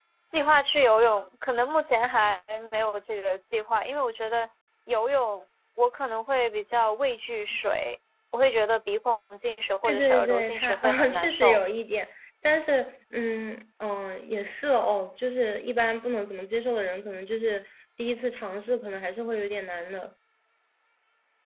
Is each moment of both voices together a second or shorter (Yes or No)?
No